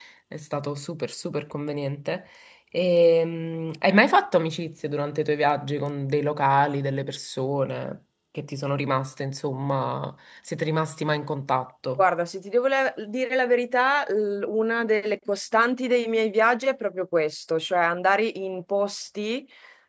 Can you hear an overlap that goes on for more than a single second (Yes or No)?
No